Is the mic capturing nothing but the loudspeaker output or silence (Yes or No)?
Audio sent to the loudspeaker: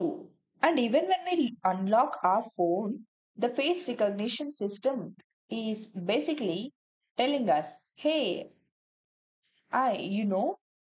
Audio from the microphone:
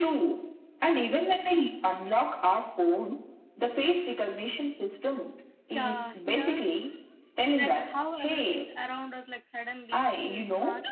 No